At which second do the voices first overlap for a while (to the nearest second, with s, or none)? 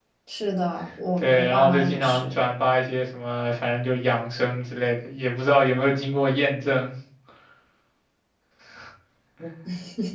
1 s